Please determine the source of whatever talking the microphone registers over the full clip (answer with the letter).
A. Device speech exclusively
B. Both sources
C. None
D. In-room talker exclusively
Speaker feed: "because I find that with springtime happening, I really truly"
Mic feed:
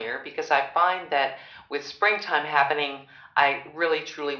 A